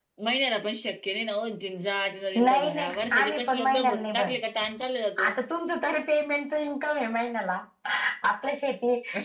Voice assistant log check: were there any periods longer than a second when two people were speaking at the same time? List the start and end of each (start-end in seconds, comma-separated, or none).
2.4-4.4